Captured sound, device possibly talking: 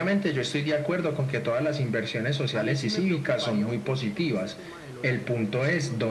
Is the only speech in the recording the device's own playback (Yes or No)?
No